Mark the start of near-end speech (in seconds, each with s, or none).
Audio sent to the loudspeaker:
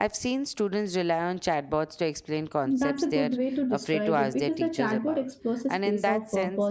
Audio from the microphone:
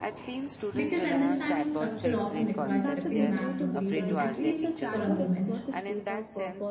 0.7 s